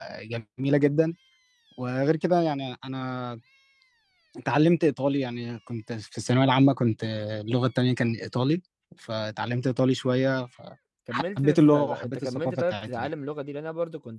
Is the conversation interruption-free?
No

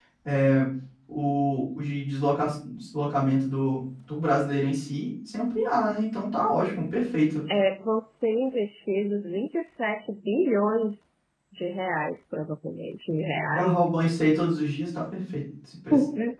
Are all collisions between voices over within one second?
Yes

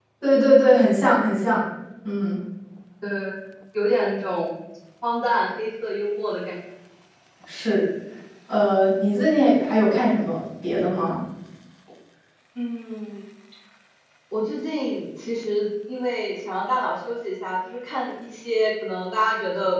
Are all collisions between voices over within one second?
Yes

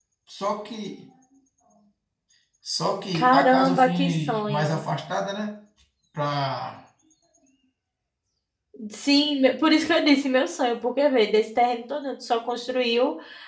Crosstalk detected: Yes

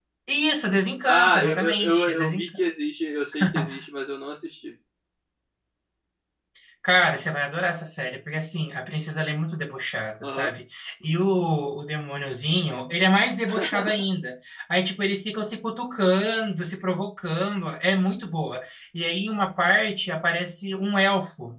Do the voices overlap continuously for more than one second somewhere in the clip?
Yes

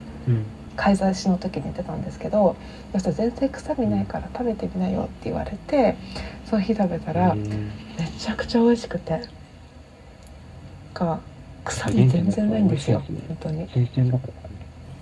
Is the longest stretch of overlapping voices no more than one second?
No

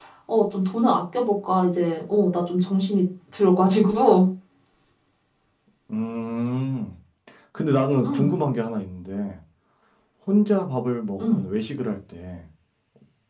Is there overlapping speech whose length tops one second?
No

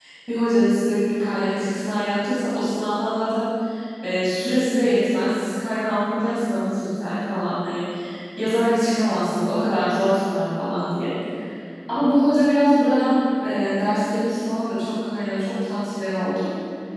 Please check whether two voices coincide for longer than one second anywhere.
No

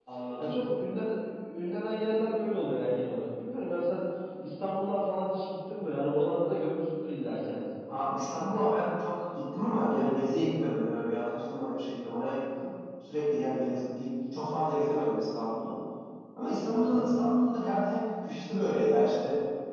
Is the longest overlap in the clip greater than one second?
No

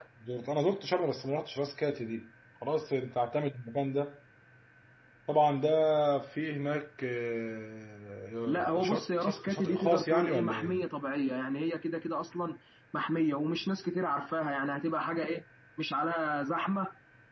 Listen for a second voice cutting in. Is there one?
Yes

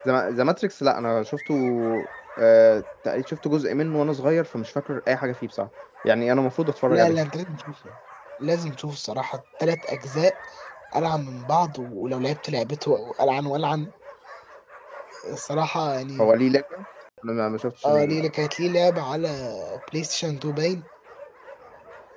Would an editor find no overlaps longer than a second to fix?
Yes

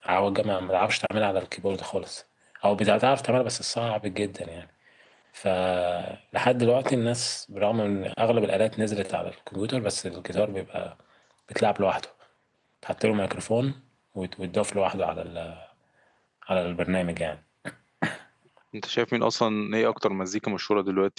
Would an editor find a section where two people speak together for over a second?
No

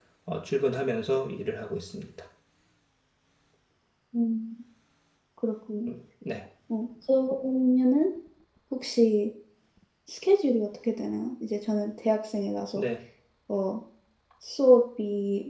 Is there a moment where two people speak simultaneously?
No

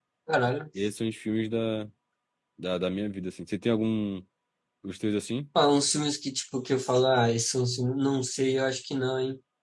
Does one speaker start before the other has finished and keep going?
No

